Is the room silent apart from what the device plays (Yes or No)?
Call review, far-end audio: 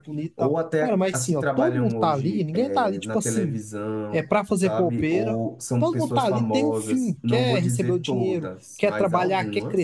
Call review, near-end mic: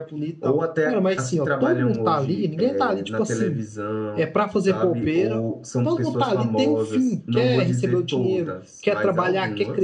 Yes